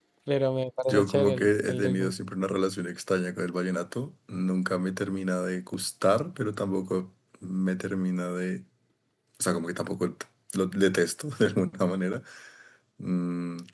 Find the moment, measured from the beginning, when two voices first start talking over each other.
0.9 s

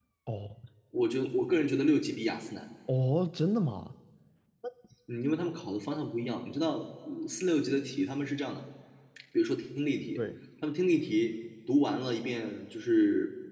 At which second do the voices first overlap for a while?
none

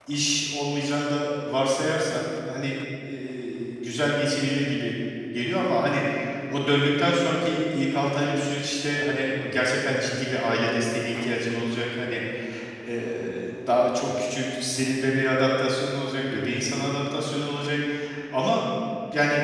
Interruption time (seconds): none

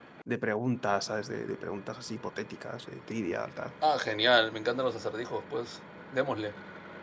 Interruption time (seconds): none

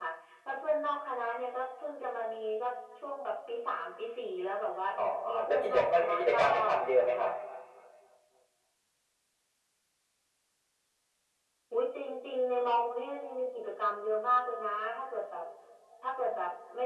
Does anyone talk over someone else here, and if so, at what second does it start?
5.3 s

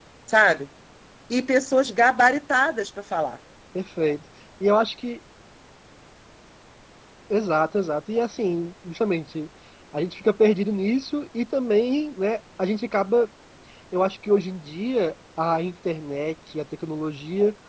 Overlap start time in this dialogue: none

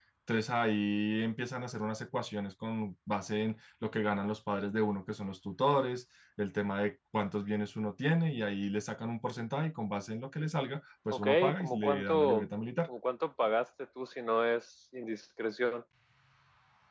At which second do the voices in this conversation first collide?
11.1 s

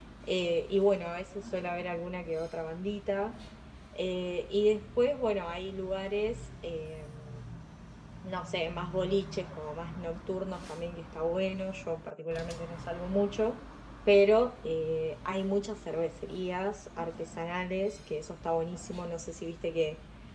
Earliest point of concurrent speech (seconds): none

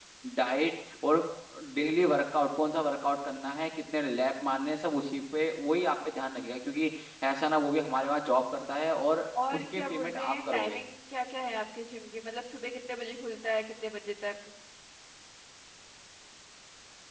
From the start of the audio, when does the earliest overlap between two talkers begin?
9.3 s

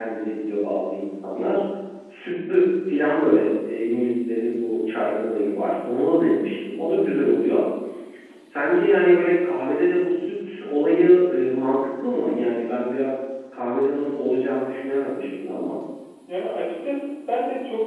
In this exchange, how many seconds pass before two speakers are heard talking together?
none

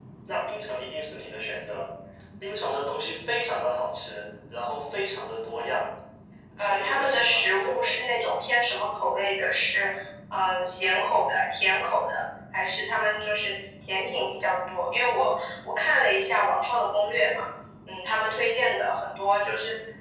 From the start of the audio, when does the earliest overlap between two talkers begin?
6.6 s

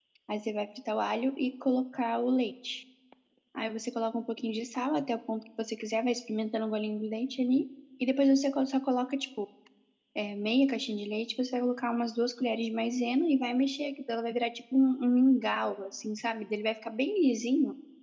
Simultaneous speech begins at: none

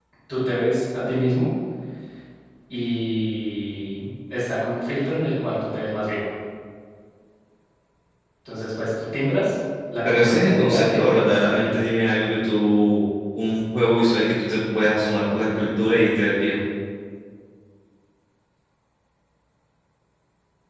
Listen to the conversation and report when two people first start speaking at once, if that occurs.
10.1 s

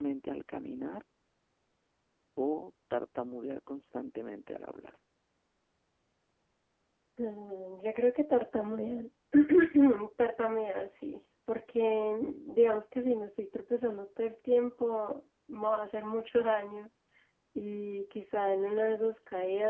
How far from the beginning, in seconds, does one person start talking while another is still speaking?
none

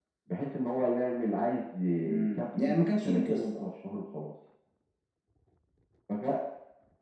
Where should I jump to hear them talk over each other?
2.0 s

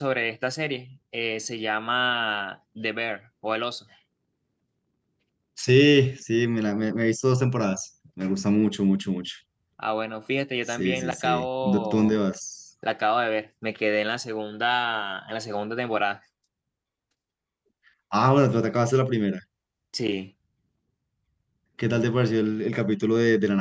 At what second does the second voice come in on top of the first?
10.7 s

